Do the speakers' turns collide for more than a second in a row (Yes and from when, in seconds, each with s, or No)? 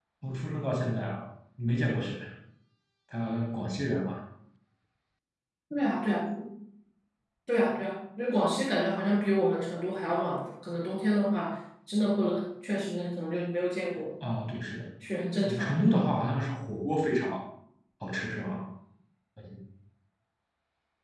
No